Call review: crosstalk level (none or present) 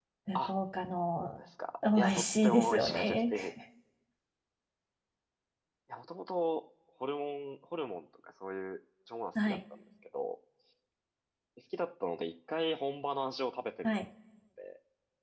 present